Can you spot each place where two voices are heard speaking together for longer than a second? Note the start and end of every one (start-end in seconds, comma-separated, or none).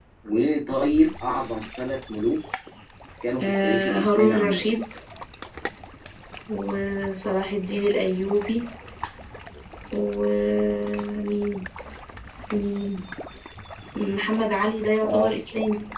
3.4-4.7